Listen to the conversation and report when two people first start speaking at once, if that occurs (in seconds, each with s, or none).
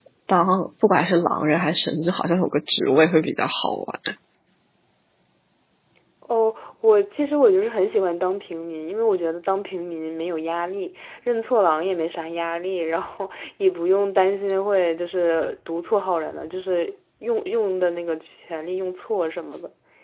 none